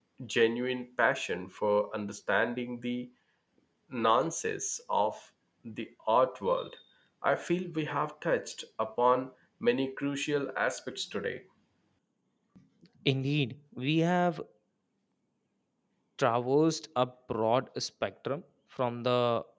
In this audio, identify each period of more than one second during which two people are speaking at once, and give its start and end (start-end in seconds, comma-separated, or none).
none